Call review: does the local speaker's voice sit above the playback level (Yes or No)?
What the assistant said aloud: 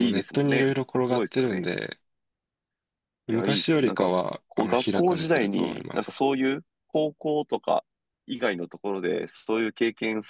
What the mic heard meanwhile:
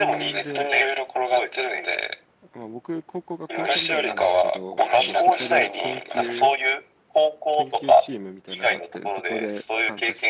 No